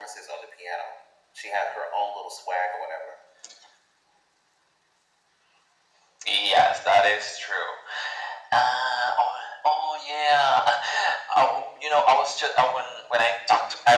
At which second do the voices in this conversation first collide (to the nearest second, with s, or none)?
none